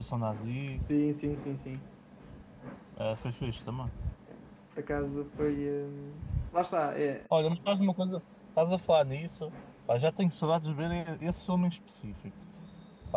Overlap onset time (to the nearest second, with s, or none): none